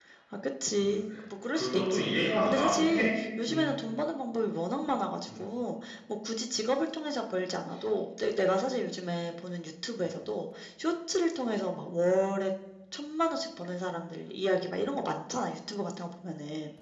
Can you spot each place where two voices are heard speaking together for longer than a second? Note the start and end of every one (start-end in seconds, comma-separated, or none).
1.5-3.1